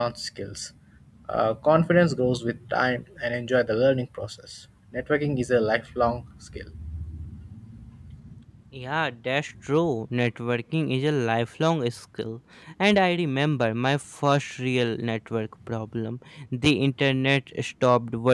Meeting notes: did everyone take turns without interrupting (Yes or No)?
Yes